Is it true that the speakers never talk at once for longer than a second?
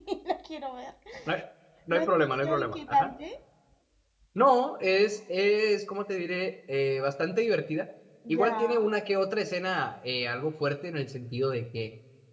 No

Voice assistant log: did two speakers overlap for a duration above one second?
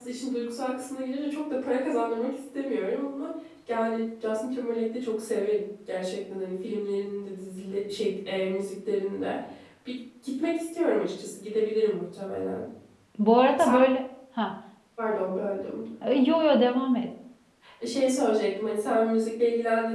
No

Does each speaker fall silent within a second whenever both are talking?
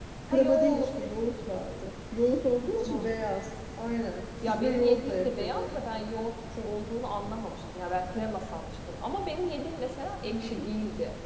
No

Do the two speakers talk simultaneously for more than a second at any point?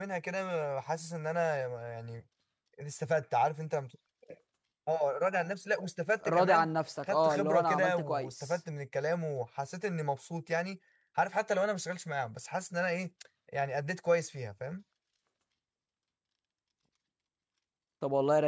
Yes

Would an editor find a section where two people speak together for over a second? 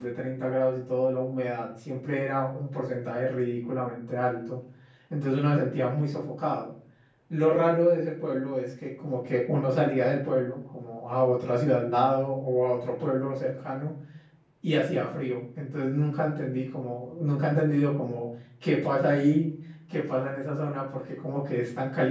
No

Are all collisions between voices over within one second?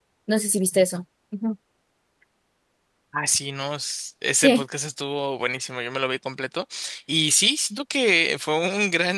Yes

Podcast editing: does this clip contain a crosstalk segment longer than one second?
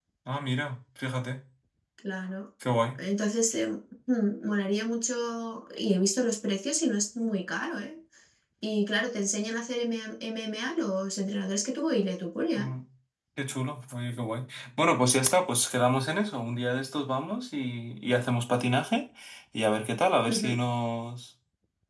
No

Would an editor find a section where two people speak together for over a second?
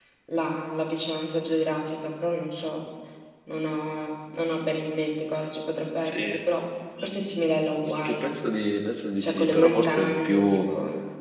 Yes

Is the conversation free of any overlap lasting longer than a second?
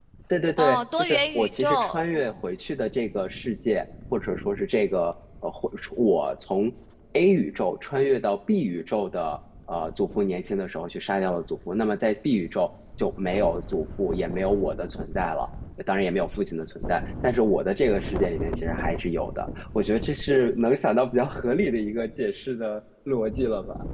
No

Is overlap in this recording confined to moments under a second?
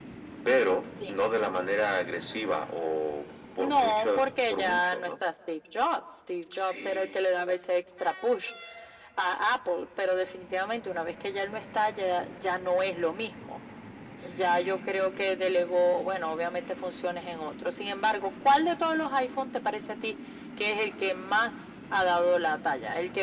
No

